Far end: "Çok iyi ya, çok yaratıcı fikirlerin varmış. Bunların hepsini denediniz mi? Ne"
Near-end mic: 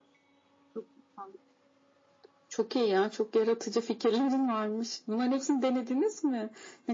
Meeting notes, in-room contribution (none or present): none